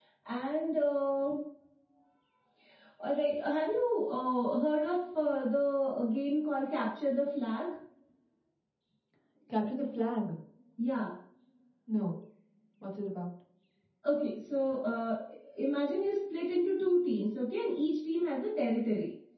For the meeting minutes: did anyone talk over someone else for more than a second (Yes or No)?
No